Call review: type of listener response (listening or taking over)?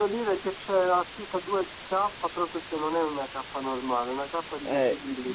taking over